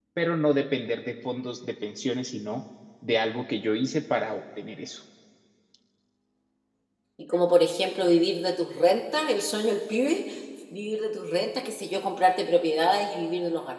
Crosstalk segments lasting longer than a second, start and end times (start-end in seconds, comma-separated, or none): none